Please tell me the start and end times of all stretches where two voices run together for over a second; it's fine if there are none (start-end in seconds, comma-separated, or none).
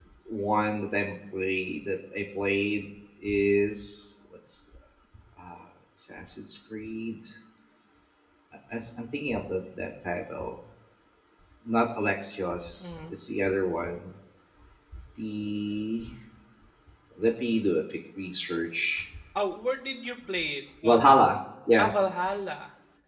none